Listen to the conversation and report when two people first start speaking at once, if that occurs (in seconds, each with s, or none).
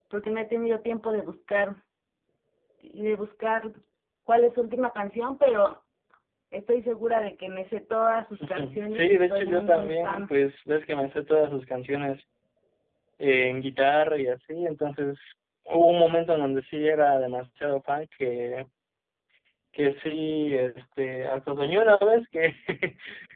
8.3 s